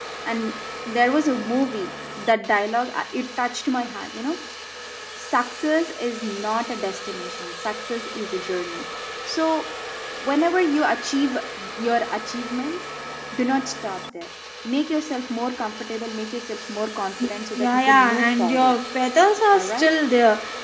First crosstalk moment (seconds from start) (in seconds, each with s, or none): 17.6 s